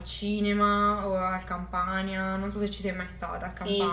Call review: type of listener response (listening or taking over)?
taking over